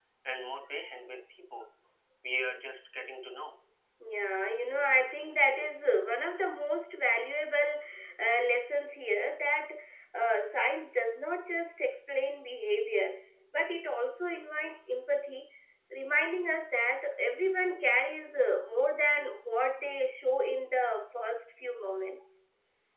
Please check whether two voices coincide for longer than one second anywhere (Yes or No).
No